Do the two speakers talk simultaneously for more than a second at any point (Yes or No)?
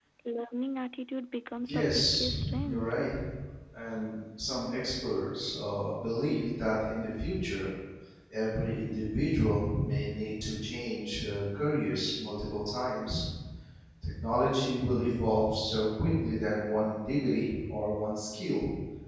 Yes